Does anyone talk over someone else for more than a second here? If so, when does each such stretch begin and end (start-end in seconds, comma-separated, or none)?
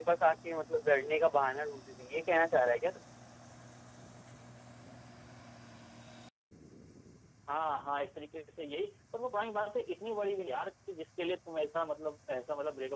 none